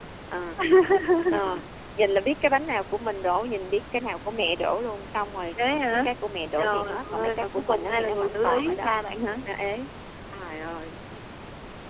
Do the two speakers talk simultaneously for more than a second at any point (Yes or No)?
Yes